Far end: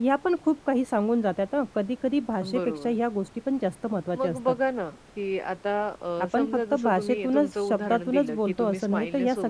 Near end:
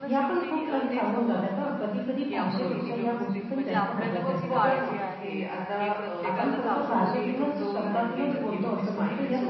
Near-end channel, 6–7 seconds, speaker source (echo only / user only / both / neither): both